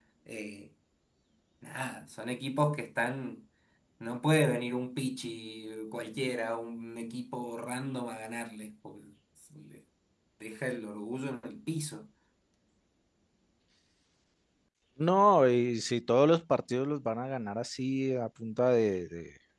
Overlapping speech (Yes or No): No